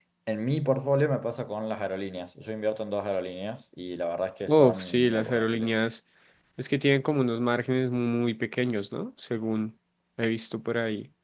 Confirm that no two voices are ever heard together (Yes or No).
No